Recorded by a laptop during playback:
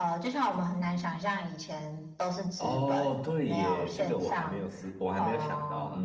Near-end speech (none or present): present